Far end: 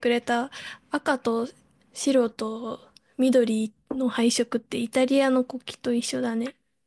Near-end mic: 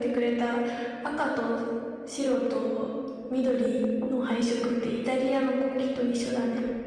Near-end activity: none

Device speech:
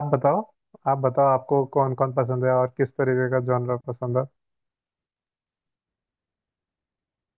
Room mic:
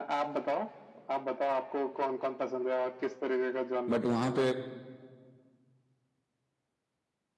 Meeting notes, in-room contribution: present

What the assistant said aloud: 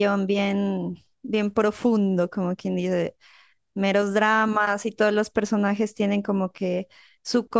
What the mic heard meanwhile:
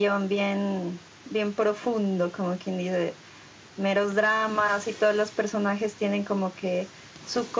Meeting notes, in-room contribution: none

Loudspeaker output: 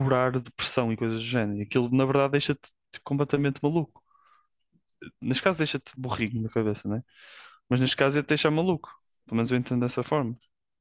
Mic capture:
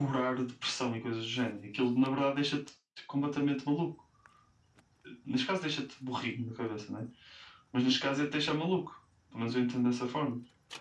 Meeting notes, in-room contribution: none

